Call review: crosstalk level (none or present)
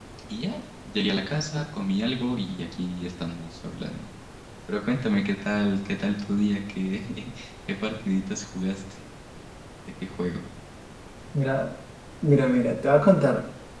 none